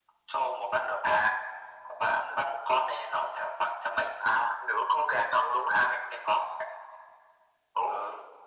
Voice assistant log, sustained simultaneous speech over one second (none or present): none